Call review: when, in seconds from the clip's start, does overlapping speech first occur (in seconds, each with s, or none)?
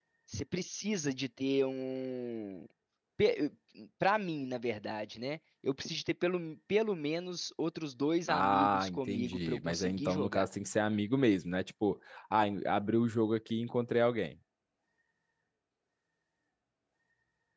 8.3 s